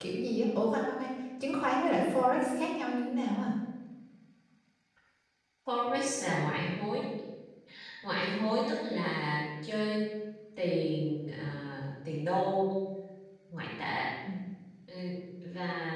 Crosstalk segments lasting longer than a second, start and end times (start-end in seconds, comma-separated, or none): none